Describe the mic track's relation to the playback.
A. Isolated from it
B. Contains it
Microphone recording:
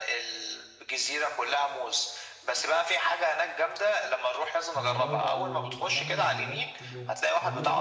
B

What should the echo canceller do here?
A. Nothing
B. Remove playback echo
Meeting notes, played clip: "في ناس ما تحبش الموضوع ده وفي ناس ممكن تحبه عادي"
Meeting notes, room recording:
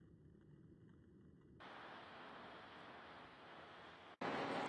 A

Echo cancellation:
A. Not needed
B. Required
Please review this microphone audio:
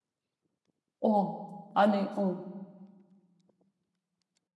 A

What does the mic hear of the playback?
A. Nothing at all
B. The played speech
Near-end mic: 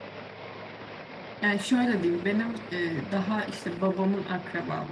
A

